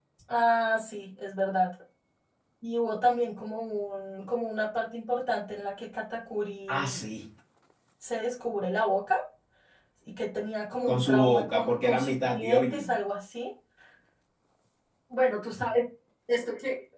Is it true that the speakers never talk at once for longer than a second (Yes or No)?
No